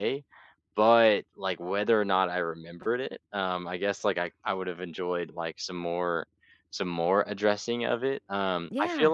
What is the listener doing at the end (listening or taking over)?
listening